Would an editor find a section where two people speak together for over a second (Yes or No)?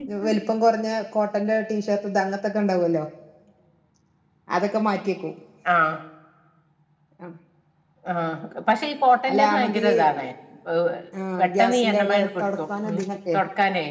Yes